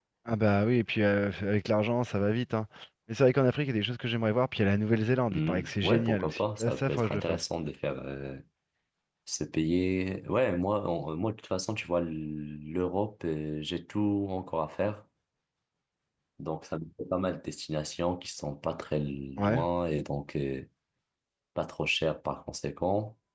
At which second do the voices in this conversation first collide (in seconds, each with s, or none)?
5.3 s